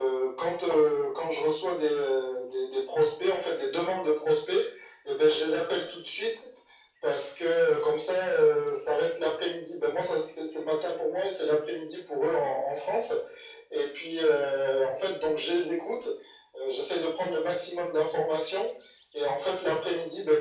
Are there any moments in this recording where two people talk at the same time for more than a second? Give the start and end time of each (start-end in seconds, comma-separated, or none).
none